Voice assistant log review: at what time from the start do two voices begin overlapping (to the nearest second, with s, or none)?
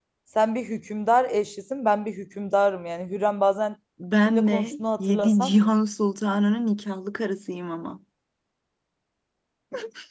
4 s